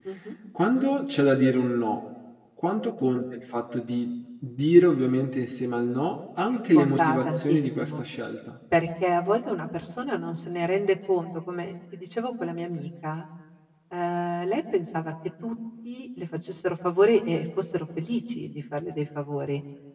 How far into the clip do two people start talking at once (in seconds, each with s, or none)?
6.8 s